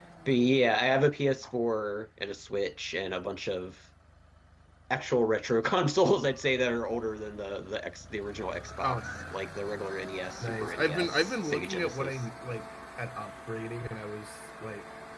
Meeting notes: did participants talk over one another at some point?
Yes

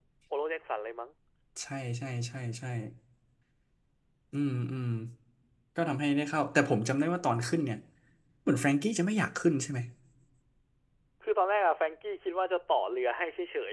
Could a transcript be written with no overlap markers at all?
Yes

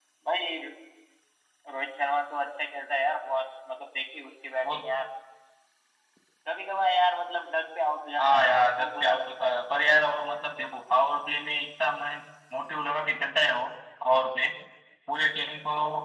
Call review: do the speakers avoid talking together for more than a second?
No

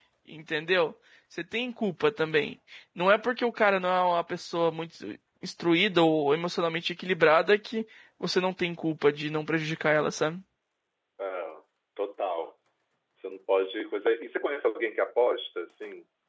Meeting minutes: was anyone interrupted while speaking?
No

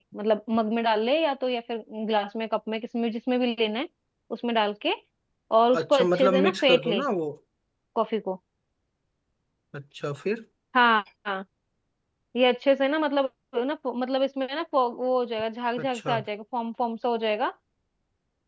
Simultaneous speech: Yes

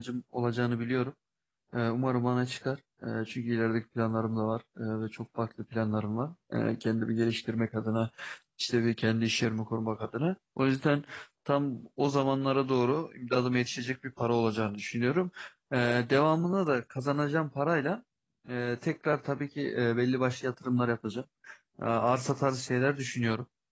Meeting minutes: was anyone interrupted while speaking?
No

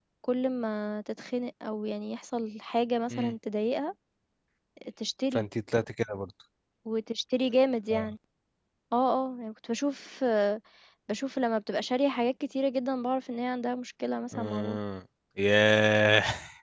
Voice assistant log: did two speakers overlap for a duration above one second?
No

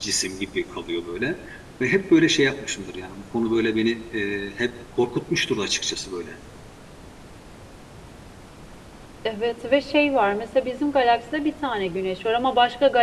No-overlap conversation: Yes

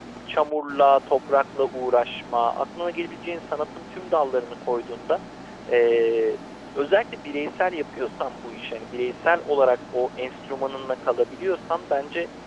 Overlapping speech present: No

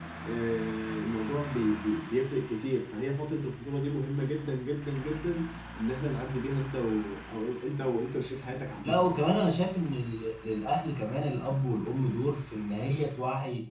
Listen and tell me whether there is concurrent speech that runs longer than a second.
No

